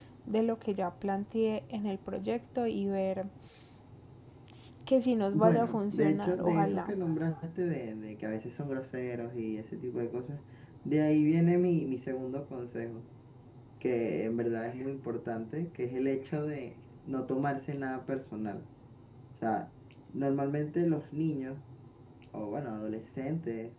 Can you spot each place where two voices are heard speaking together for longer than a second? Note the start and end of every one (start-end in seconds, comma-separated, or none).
5.3-7.0